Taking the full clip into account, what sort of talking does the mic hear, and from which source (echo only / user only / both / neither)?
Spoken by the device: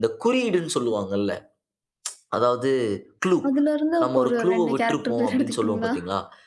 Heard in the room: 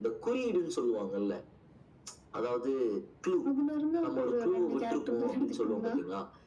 echo only